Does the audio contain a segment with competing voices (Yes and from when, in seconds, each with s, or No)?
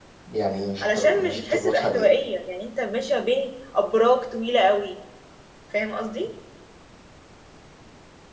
Yes, from 0.8 s